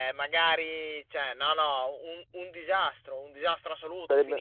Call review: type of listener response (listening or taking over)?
listening